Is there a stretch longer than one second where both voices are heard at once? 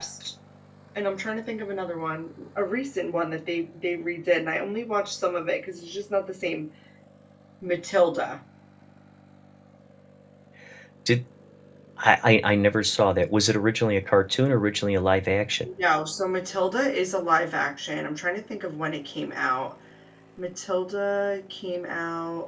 No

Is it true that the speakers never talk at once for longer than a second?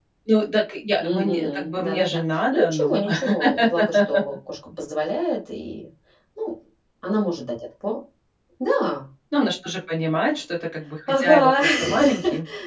No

